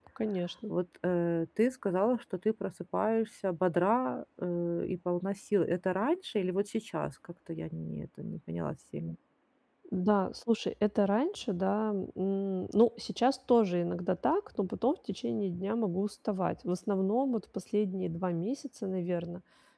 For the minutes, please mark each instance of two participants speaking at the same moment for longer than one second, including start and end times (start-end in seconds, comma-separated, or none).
none